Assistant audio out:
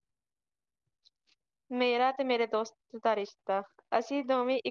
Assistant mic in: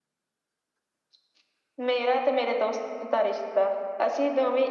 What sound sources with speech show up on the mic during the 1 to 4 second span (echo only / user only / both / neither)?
echo only